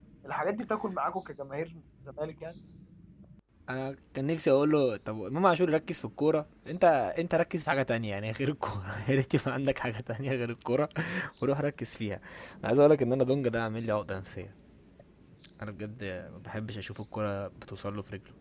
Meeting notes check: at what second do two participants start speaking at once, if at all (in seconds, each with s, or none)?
none